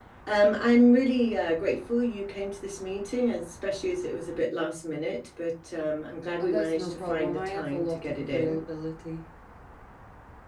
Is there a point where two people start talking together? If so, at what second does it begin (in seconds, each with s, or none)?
6.4 s